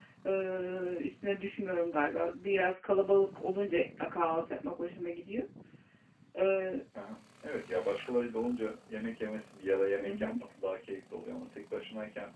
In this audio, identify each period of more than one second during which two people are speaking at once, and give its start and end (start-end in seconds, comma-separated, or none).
none